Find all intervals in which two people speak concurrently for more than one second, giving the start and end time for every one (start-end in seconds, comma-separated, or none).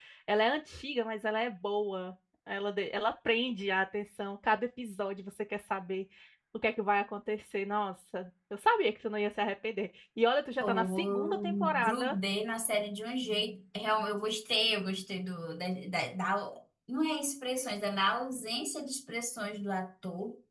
10.6-12.2